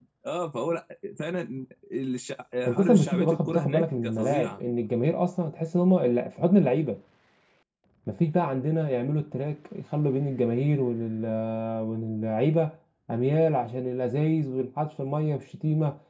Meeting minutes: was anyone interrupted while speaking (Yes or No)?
Yes